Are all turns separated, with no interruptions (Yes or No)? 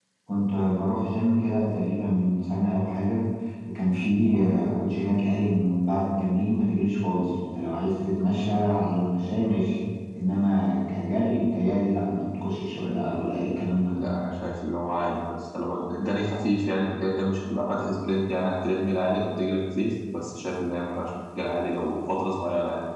Yes